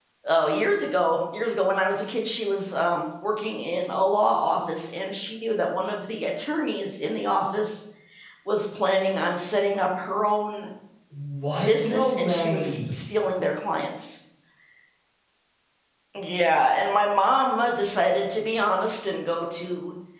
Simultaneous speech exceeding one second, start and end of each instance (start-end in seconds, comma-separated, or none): 11.6-13.0